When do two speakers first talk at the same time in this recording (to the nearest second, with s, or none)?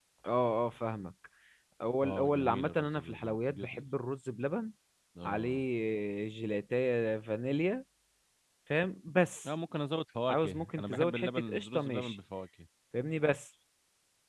2 s